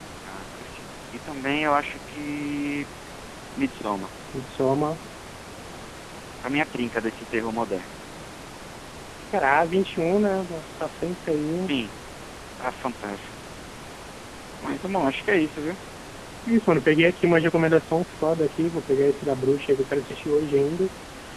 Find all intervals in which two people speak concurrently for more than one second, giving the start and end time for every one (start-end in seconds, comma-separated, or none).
none